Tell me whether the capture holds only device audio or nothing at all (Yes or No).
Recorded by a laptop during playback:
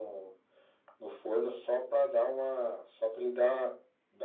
Yes